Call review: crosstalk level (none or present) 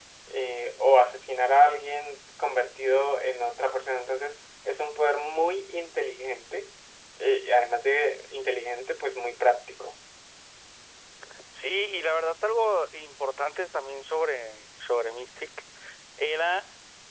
none